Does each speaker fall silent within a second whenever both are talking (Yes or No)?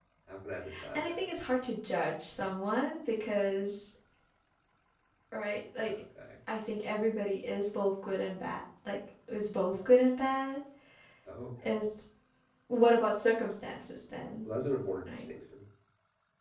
Yes